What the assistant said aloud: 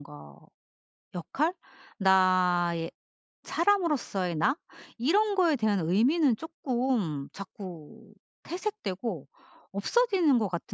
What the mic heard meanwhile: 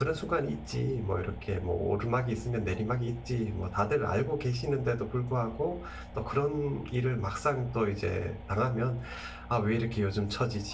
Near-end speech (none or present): present